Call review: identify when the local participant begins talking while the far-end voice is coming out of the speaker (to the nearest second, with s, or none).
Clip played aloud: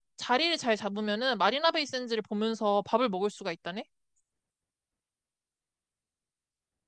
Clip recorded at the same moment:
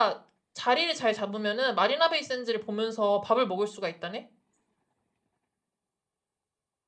none